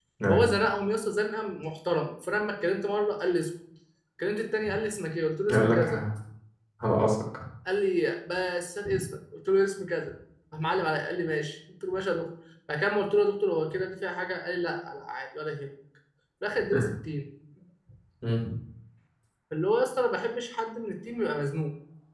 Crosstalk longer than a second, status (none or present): none